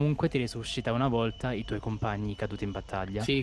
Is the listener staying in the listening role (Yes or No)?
No